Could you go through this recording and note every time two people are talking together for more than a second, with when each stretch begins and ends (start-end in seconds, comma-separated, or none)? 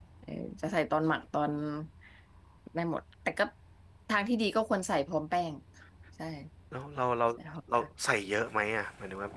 none